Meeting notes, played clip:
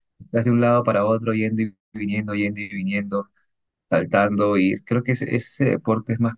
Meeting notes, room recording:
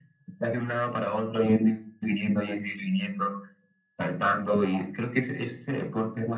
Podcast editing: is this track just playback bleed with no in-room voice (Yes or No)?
Yes